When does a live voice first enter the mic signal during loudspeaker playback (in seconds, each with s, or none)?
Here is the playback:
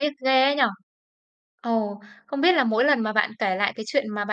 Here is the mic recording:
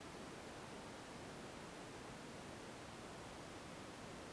none